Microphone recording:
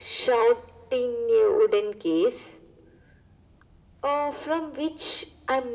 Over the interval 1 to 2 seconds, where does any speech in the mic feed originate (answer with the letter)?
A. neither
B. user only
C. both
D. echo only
D